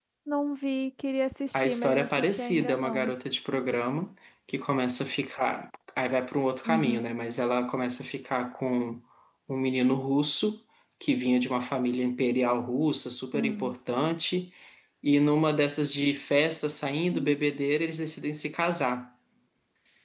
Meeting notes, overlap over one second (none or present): present